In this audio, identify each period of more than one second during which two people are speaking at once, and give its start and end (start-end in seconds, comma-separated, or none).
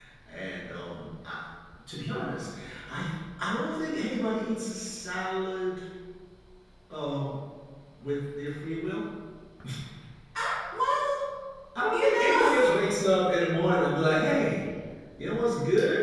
11.9-14.0